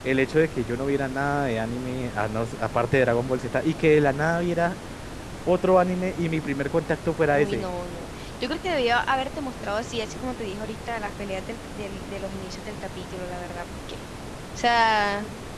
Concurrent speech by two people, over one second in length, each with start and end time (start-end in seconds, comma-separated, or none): none